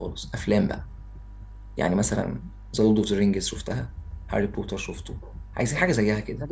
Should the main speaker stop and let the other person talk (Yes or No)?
Yes